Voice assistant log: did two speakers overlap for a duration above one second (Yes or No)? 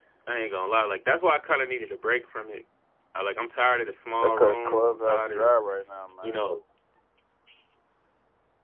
Yes